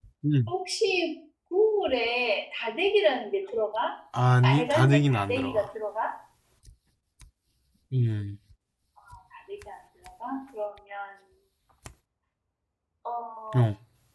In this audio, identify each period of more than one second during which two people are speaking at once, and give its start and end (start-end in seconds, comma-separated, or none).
4.4-5.7